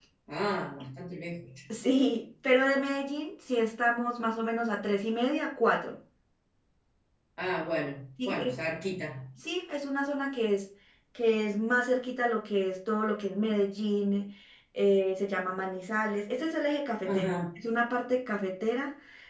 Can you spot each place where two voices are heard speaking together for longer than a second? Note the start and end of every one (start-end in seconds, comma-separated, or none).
none